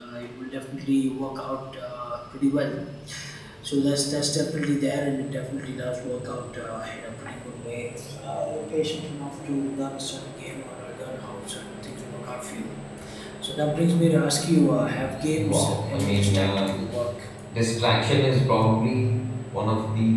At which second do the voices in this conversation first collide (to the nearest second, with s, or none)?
15 s